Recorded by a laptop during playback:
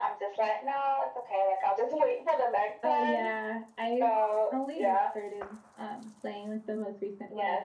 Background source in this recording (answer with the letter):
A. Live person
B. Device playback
A